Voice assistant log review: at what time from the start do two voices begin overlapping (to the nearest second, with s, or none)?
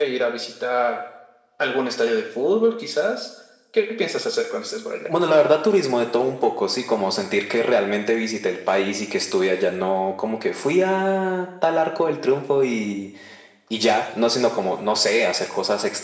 none